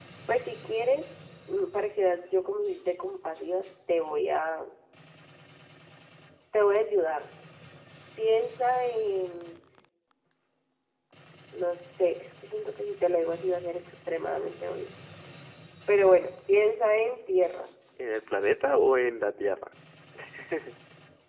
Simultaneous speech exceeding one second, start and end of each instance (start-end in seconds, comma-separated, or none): none